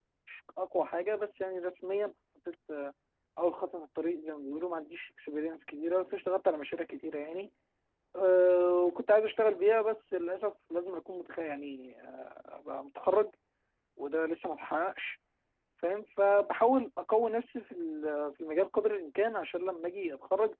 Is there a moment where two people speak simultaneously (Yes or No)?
No